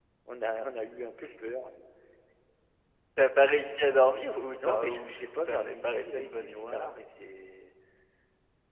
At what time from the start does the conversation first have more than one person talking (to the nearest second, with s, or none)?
5 s